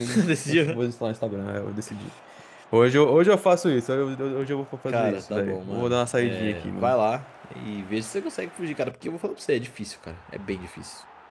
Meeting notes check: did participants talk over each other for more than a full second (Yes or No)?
Yes